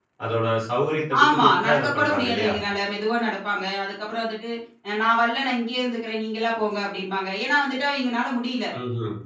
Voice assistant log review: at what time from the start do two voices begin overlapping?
1.2 s

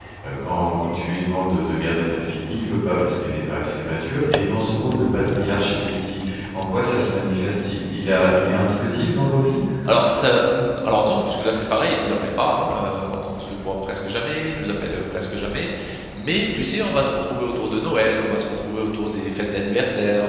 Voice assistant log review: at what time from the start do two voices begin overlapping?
none

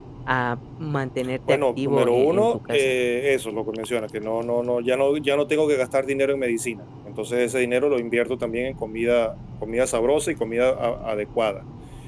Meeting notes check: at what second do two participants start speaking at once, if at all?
1.5 s

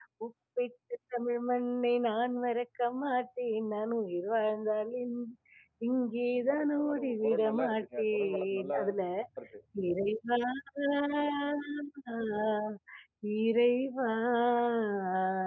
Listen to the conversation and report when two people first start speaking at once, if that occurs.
6.3 s

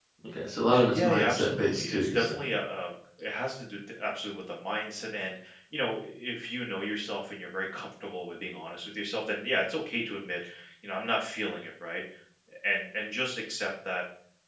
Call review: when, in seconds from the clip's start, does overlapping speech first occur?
0.9 s

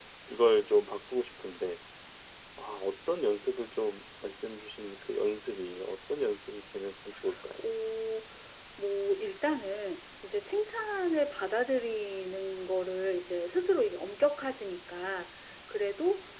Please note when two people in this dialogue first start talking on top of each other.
none

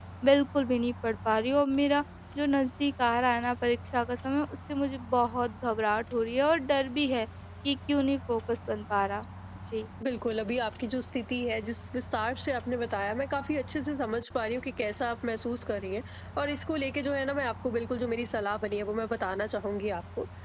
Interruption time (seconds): none

